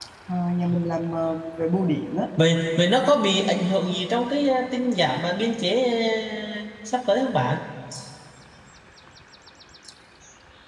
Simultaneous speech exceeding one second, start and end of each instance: none

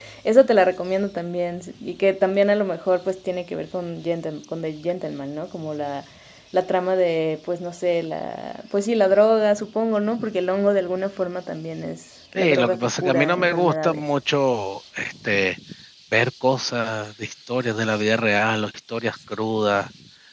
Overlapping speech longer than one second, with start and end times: 12.4-14.0

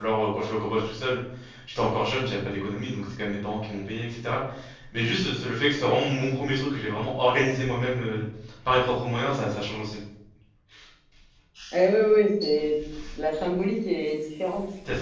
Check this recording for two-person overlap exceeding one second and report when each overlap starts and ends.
none

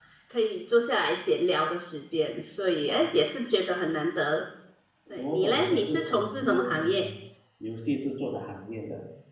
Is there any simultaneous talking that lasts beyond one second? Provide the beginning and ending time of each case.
5.2-7.1

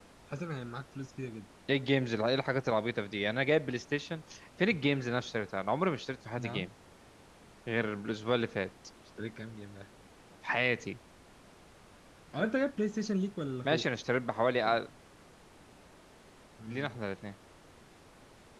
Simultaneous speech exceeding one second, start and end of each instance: none

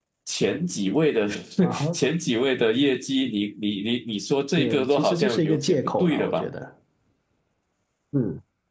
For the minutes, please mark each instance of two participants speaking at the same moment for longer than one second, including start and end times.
4.6-6.5

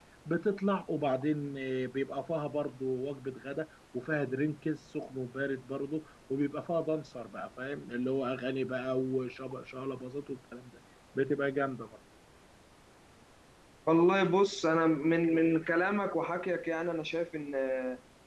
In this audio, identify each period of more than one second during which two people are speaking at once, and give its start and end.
none

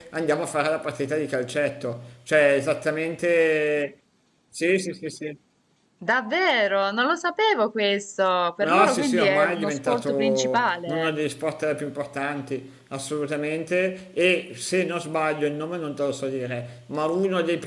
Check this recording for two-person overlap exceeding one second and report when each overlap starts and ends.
8.6-11.1

